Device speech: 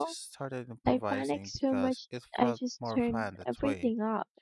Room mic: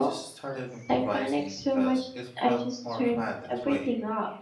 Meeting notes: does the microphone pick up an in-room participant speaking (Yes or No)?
No